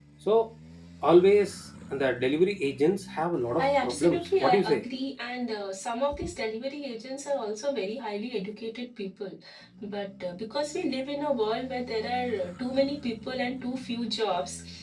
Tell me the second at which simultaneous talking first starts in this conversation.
3.6 s

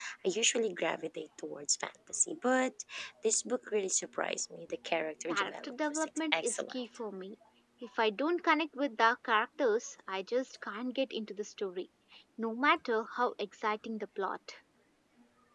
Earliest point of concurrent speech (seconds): 5.3 s

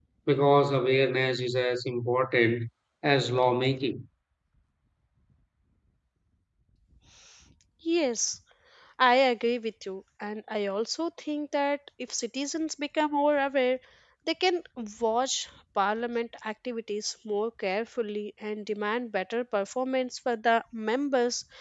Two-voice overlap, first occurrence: none

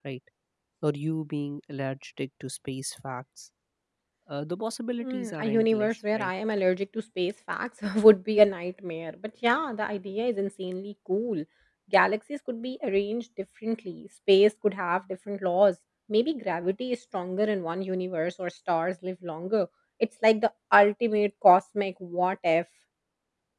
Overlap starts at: 5.0 s

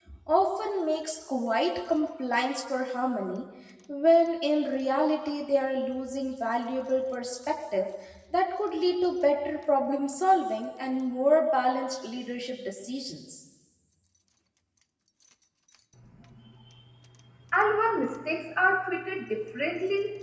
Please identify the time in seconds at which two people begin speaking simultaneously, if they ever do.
none

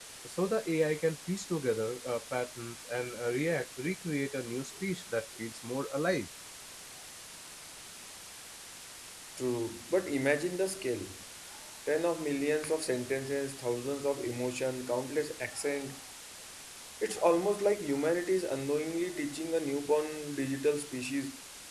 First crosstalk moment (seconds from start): none

